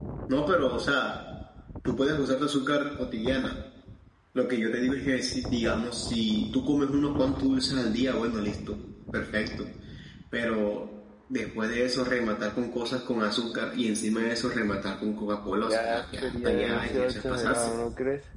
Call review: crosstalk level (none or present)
present